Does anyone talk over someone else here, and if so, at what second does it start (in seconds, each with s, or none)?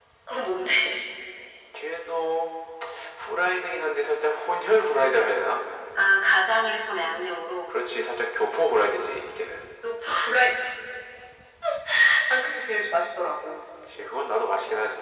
none